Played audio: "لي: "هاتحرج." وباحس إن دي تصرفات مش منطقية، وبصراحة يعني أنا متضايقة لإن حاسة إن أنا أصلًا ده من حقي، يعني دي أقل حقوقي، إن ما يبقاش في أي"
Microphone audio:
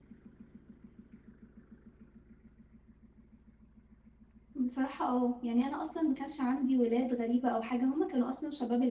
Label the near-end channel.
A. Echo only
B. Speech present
B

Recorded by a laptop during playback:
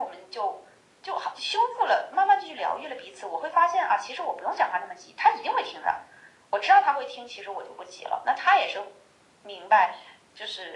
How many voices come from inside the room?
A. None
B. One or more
A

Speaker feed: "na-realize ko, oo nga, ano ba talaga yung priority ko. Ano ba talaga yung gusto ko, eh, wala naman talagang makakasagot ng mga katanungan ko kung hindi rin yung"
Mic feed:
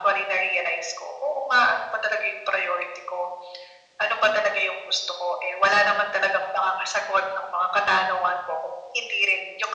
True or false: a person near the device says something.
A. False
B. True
A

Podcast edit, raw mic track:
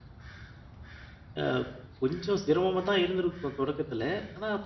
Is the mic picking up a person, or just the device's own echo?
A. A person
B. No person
A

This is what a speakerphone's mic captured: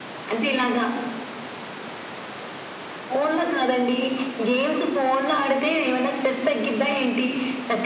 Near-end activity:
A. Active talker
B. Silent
B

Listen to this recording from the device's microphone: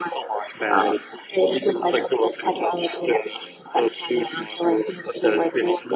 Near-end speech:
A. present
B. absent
B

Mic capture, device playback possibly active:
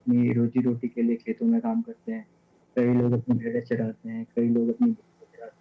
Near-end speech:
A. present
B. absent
B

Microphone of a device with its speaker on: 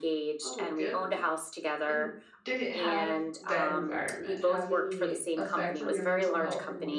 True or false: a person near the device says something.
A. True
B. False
A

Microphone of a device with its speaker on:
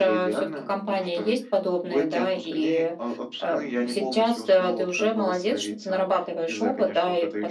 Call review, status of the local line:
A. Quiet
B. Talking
A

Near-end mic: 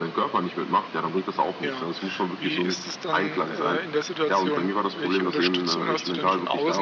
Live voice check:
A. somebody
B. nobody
A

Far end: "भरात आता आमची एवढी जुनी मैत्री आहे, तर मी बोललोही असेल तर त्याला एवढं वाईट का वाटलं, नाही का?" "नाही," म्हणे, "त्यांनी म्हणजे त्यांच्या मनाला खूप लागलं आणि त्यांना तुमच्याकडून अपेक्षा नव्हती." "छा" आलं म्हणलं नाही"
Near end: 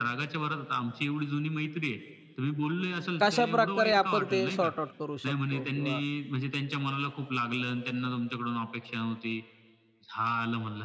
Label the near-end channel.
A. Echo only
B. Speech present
B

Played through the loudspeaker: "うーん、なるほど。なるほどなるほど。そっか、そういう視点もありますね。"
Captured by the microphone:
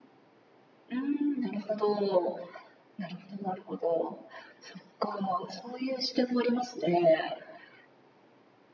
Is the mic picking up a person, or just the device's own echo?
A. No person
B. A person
A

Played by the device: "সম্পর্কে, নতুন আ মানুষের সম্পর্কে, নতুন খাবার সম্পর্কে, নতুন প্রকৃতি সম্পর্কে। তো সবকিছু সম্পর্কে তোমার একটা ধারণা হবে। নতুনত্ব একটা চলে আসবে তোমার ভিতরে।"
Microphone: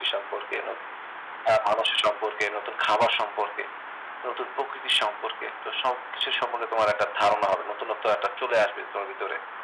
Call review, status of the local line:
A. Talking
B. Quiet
B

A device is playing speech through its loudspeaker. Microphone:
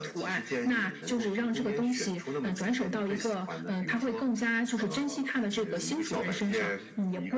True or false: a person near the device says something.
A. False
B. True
A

